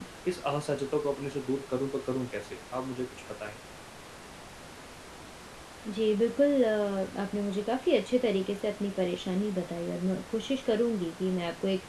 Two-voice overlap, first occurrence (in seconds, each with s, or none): none